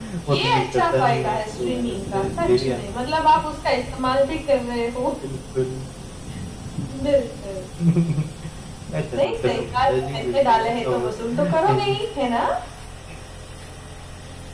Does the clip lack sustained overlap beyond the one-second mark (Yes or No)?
No